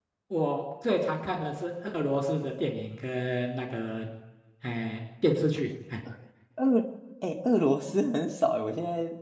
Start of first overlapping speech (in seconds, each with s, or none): none